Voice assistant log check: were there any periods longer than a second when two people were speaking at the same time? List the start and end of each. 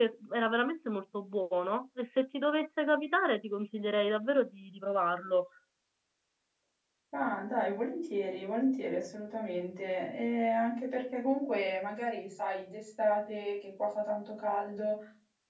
none

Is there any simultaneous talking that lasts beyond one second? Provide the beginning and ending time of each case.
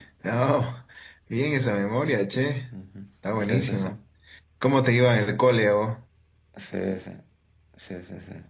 none

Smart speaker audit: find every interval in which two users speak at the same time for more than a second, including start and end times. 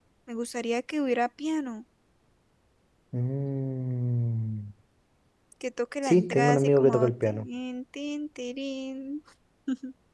6.0-7.5

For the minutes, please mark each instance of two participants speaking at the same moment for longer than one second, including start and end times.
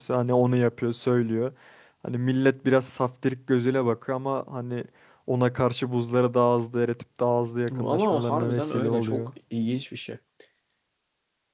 7.8-9.3

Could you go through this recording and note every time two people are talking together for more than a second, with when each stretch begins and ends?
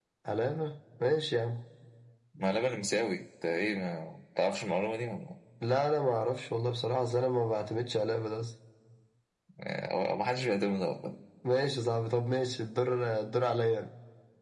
none

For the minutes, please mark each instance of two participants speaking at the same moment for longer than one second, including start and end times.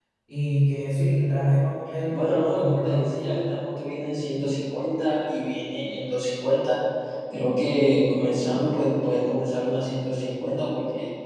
2.1-3.3

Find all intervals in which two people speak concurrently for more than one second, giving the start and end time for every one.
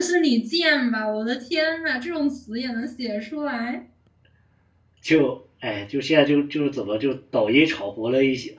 none

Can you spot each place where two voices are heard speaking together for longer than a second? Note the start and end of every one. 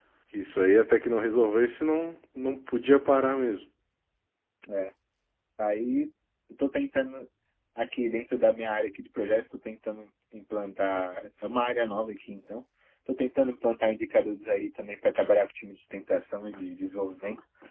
none

